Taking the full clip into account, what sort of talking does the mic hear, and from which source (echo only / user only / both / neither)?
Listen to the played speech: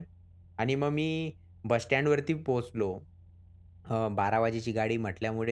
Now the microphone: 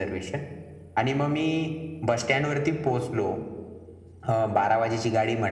echo only